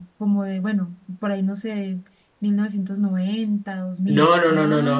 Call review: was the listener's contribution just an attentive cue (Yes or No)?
No